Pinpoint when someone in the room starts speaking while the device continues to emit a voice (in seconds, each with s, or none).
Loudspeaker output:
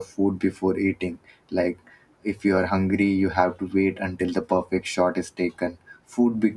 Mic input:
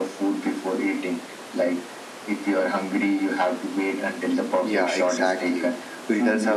4.6 s